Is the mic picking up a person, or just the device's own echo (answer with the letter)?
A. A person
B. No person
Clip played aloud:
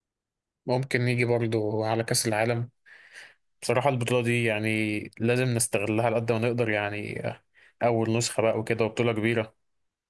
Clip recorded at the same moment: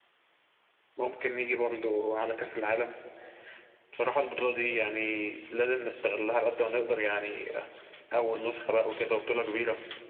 B